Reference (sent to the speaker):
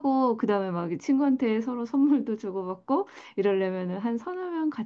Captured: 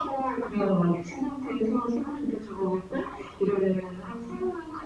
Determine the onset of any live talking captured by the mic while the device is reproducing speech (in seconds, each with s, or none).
none